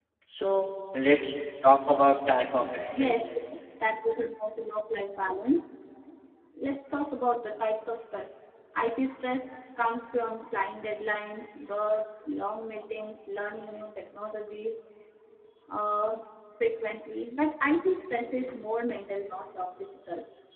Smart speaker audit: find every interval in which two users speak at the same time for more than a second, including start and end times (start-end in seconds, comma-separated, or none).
none